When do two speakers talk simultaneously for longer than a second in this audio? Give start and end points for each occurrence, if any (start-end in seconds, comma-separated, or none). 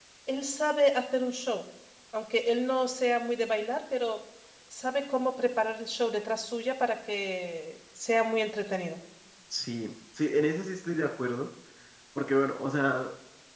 none